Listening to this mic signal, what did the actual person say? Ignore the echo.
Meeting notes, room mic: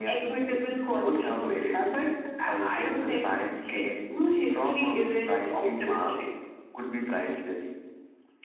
none

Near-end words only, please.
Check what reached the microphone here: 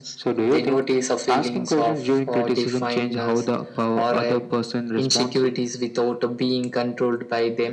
none

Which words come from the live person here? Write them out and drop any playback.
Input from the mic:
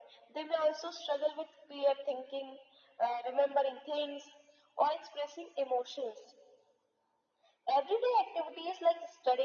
none

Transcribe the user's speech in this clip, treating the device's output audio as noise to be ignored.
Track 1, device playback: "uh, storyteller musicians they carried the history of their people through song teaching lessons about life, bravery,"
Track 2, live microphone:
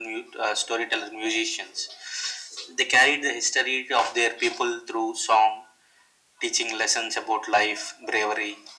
none

